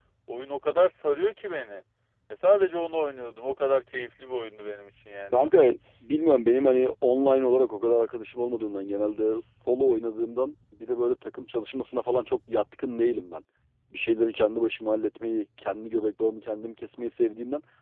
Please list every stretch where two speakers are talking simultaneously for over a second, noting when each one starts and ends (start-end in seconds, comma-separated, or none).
none